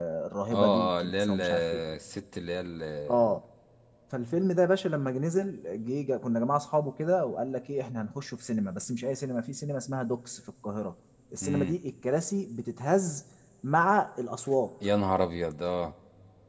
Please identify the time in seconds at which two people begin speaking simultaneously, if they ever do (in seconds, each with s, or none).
0.5 s